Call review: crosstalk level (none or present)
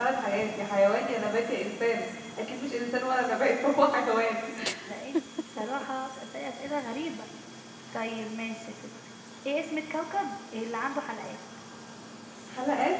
none